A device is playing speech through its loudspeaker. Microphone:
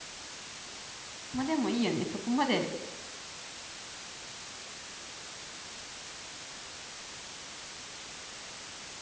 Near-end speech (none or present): present